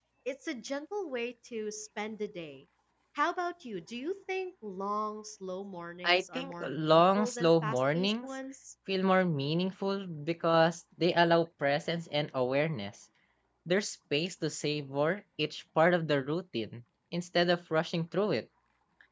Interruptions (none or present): present